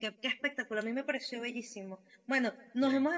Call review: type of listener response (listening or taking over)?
listening